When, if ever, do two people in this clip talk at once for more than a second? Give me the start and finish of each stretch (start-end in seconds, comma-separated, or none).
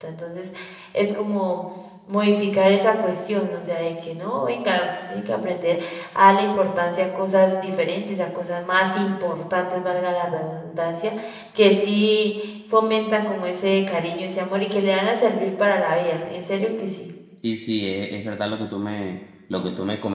none